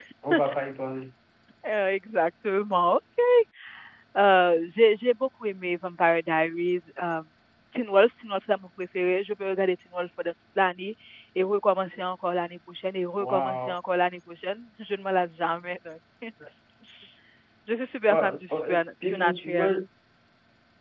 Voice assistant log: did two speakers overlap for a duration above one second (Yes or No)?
Yes